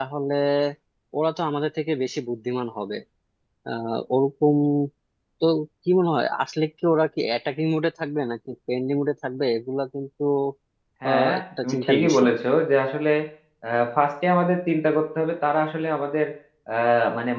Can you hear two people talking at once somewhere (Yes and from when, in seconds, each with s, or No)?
Yes, from 11.1 s